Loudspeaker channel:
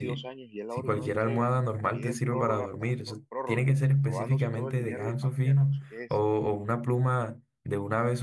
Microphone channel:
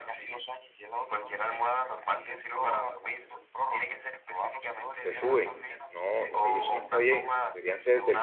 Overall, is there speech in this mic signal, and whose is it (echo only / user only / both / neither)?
both